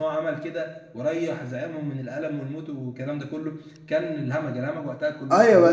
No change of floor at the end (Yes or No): No